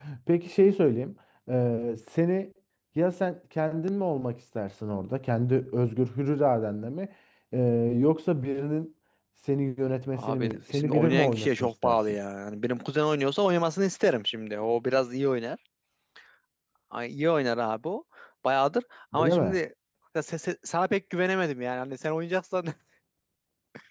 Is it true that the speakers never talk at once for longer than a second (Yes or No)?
No